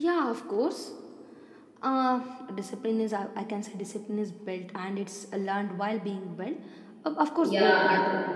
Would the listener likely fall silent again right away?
No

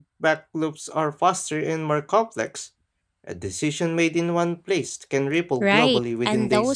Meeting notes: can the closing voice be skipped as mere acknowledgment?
No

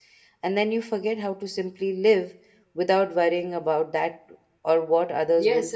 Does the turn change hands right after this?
Yes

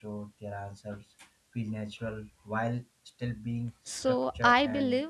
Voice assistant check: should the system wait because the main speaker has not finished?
No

